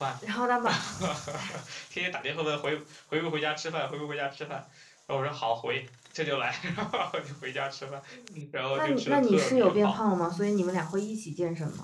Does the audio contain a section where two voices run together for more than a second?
Yes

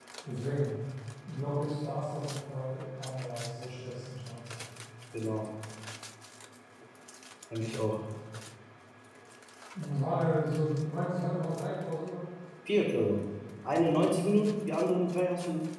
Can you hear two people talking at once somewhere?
No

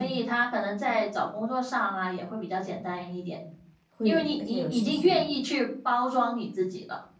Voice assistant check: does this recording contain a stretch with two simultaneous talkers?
Yes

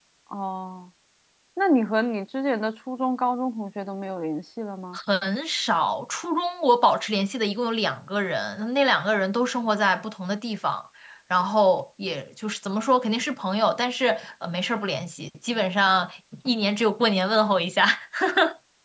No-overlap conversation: Yes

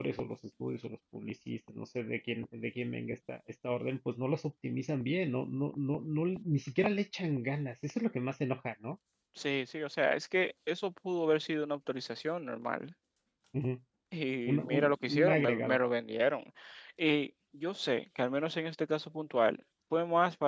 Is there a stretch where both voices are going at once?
Yes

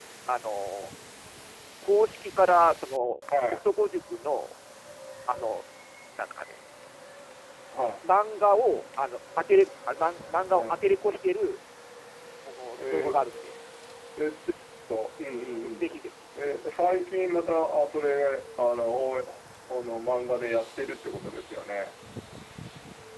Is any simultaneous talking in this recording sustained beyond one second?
No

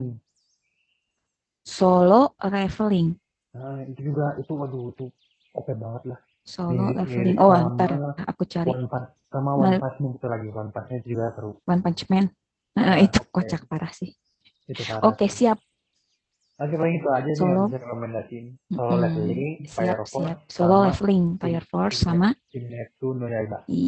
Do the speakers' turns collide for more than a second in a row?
Yes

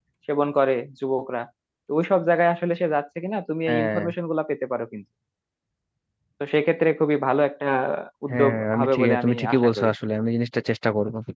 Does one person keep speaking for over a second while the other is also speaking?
Yes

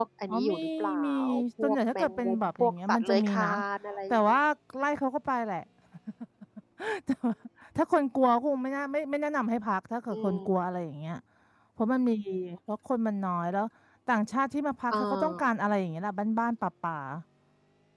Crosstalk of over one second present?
Yes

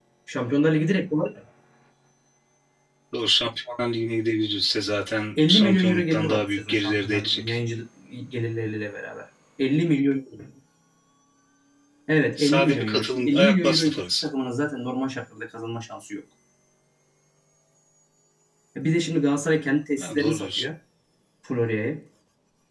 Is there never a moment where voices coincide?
No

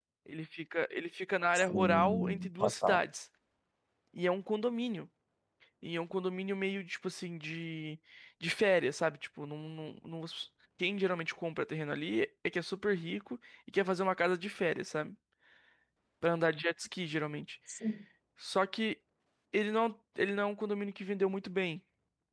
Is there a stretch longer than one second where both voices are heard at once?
Yes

